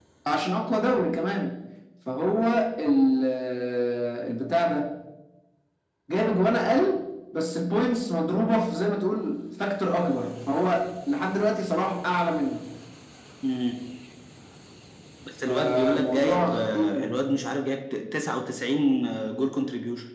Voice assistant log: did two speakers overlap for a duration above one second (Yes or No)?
Yes